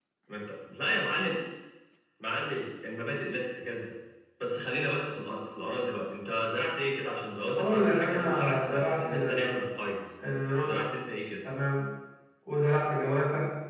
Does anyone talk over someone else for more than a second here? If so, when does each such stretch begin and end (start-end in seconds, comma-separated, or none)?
7.6-9.6